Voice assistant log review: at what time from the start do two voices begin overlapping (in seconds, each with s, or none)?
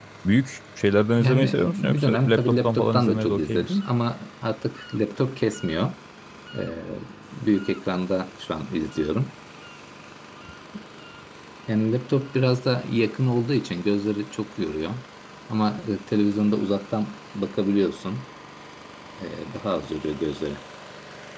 1.2 s